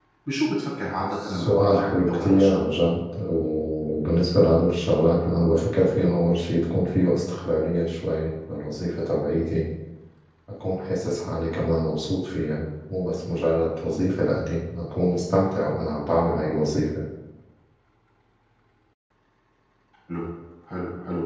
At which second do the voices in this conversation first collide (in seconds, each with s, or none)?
1.2 s